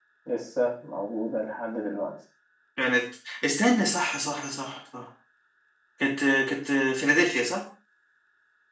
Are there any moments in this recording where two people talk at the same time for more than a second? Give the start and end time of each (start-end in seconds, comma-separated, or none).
none